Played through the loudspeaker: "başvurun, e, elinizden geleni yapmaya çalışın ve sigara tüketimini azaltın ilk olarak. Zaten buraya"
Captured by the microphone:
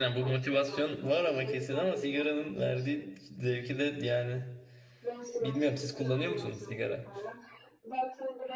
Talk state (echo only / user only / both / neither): both